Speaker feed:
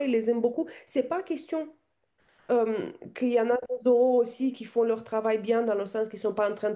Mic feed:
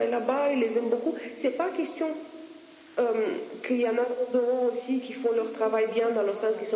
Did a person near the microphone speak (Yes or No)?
Yes